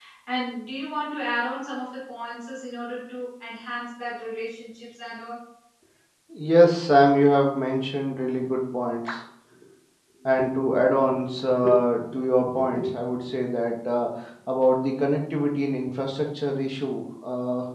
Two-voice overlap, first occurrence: none

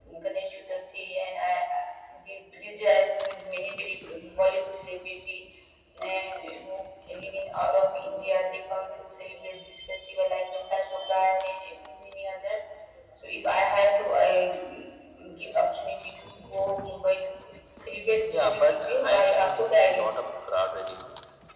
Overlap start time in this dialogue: 18.2 s

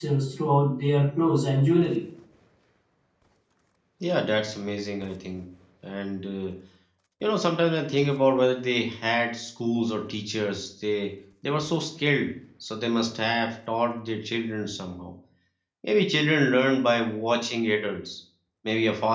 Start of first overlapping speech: none

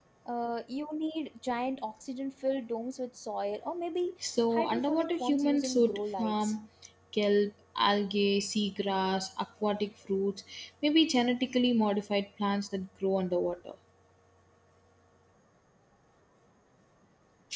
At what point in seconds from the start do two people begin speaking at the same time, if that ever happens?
4.2 s

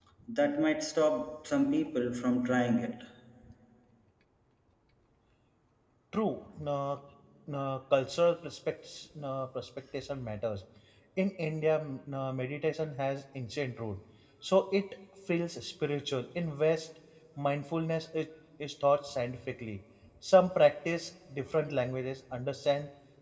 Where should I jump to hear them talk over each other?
none

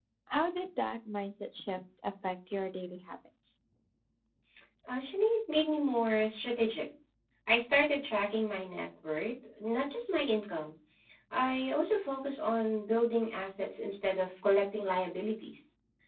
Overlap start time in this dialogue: none

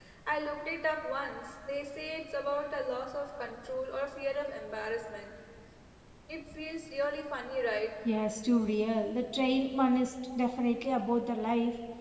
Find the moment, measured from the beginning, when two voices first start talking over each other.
none

